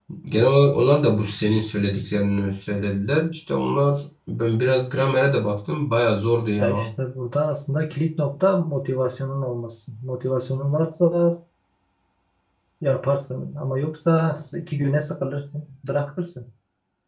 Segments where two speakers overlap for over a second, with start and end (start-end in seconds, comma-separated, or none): none